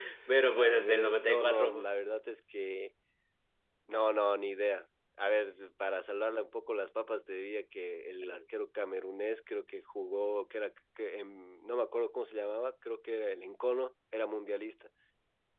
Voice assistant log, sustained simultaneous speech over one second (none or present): present